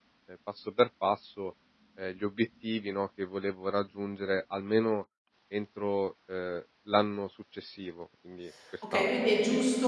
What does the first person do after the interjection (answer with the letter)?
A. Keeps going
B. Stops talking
B